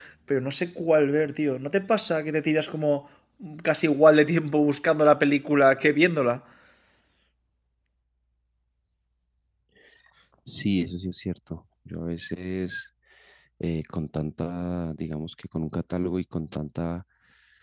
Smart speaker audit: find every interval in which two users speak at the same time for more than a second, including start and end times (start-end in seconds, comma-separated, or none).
none